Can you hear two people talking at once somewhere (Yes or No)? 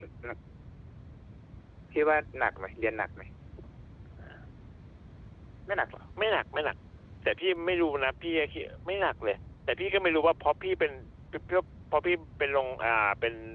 No